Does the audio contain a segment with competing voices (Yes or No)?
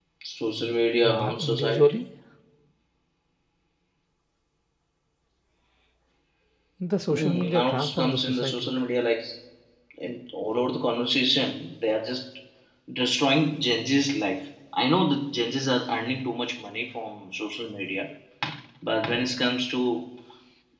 Yes